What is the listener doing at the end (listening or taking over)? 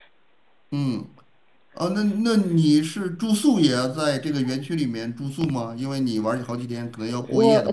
taking over